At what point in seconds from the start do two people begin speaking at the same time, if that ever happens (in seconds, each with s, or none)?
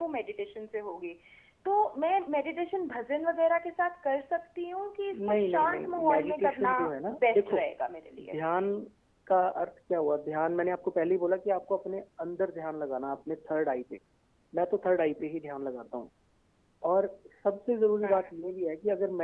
5.3 s